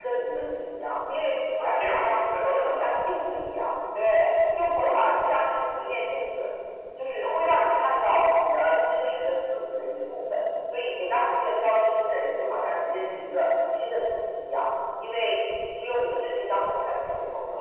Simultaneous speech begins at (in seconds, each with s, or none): 1.6 s